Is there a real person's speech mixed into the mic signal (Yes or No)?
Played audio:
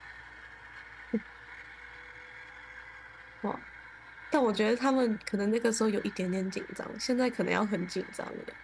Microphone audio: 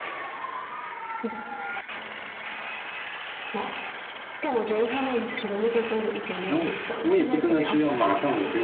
Yes